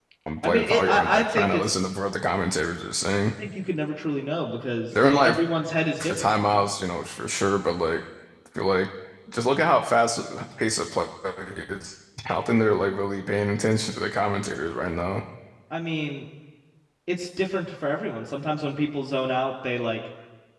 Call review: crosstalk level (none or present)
present